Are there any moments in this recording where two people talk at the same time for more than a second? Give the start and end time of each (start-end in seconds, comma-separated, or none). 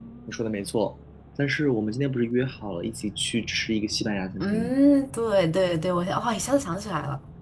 none